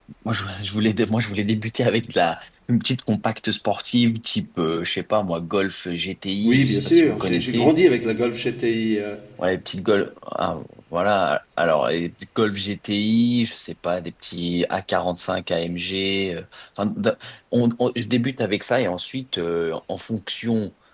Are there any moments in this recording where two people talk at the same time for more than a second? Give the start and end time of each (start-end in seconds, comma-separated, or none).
6.4-7.7